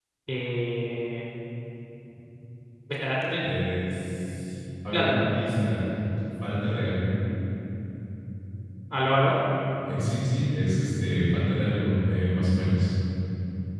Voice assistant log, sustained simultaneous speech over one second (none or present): none